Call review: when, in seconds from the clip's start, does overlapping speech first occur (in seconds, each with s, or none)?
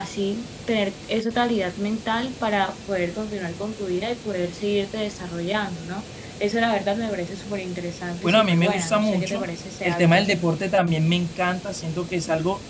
8.2 s